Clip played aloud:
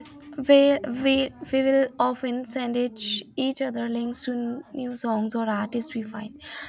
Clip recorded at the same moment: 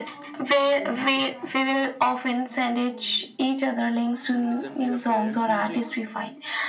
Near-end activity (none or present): present